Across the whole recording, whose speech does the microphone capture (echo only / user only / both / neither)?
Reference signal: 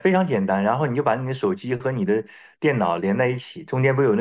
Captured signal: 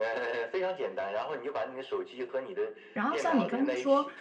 both